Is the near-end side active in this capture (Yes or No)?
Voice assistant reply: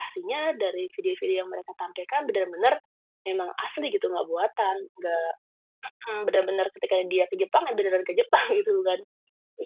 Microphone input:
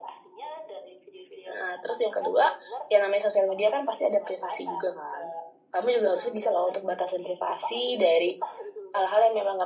Yes